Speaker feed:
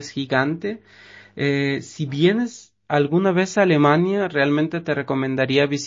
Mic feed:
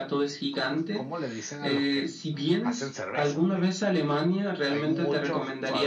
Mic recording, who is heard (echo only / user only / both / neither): both